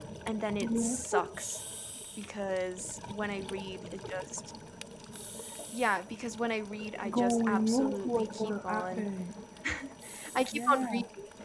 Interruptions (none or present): present